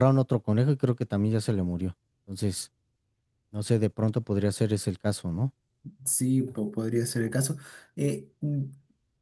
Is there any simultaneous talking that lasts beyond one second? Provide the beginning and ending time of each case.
none

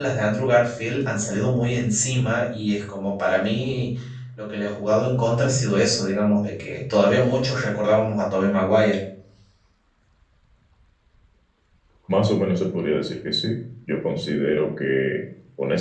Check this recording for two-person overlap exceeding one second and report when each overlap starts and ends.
none

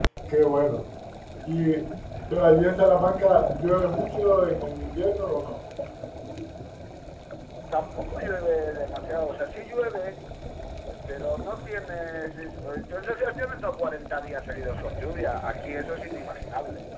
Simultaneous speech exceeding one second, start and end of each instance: none

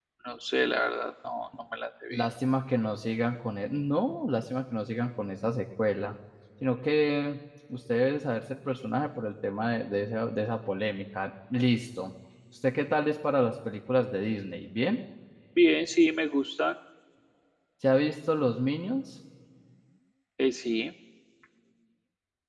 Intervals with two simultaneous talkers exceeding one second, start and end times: none

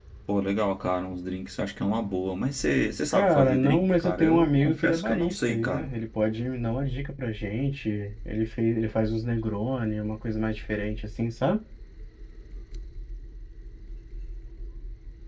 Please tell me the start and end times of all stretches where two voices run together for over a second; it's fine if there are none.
3.1-5.9

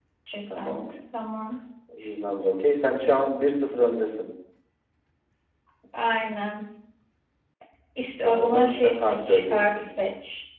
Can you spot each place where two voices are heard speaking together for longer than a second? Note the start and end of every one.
8.2-9.8

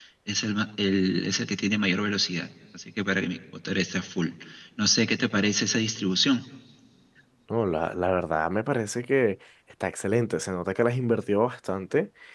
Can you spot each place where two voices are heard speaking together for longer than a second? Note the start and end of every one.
none

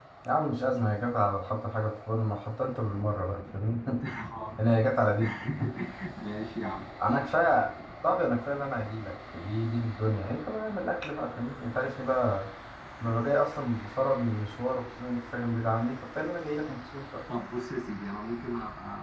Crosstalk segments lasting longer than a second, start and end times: none

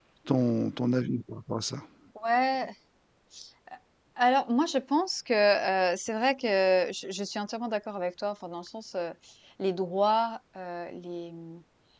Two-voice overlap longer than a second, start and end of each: none

